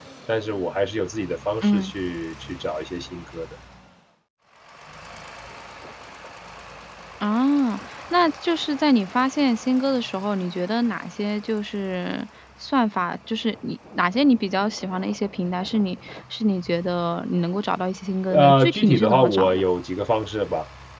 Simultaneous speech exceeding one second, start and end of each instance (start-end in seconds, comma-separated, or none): 18.3-19.6